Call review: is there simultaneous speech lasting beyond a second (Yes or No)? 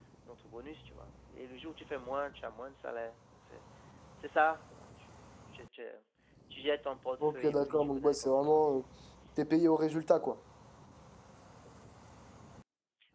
Yes